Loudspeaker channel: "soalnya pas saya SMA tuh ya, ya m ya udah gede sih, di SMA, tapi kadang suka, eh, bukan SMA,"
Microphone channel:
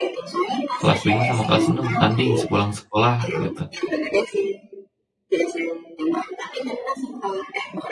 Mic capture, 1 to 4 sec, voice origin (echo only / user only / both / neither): both